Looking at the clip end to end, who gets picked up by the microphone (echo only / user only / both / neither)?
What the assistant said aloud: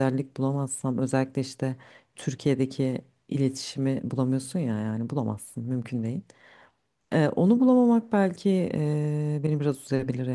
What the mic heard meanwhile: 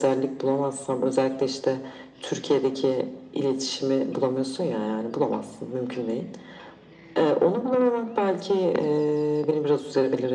echo only